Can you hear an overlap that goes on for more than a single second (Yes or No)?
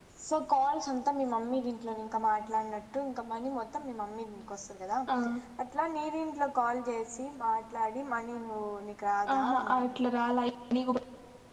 No